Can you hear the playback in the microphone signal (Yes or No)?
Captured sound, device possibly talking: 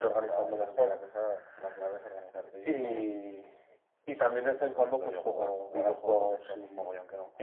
Yes